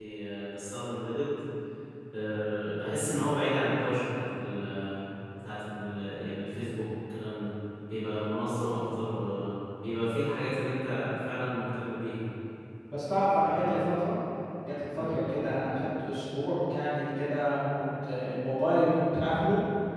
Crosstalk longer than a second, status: none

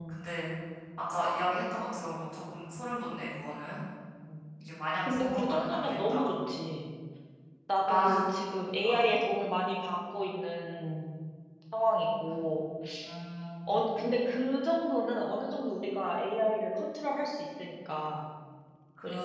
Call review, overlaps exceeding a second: present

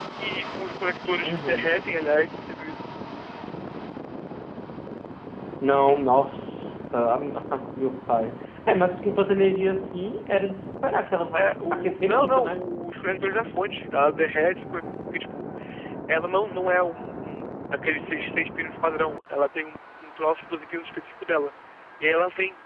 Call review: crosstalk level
present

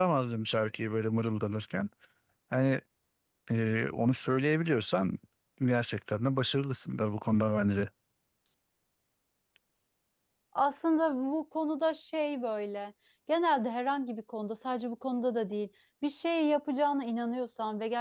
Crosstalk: none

